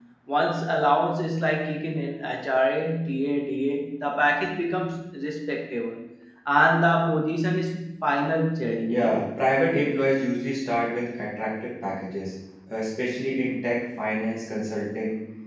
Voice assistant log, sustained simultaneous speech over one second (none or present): none